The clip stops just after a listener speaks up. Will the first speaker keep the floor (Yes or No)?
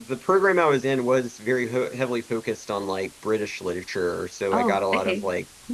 Yes